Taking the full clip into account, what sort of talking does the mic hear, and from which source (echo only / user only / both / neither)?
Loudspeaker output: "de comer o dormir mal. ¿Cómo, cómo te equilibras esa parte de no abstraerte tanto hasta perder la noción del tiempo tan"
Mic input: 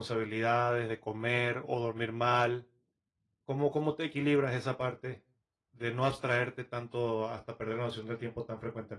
echo only